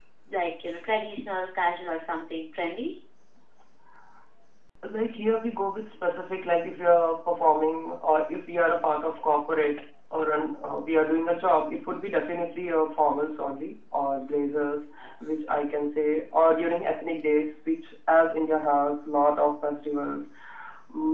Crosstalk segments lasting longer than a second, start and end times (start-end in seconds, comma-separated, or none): none